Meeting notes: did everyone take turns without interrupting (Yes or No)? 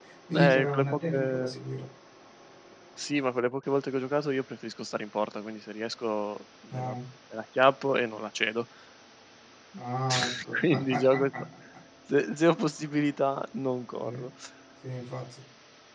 No